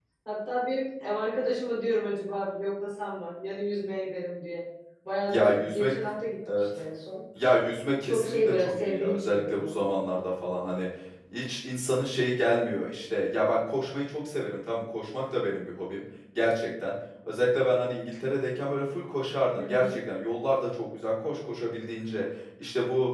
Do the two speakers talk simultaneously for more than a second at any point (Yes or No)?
Yes